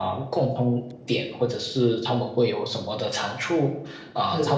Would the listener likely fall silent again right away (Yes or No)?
Yes